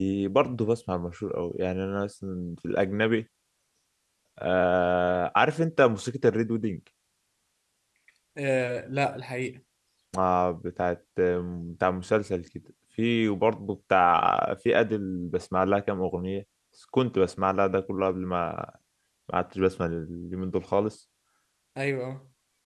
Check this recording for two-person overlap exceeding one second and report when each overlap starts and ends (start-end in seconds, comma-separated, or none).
none